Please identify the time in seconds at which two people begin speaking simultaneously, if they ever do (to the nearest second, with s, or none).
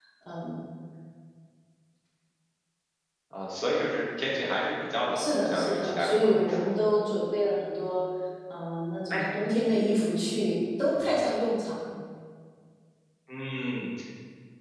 5 s